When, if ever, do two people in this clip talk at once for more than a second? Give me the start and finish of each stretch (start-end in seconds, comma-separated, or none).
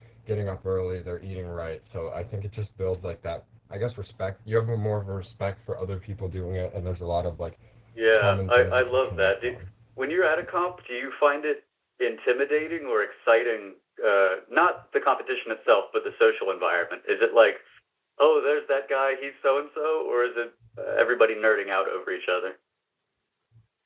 8.1-9.6